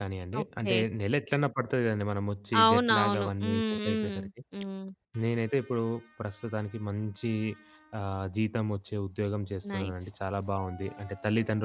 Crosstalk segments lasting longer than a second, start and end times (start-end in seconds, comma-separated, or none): 2.6-4.3